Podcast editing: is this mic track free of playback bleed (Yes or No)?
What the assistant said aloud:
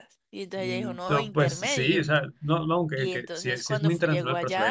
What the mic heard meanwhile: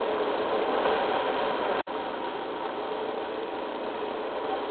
Yes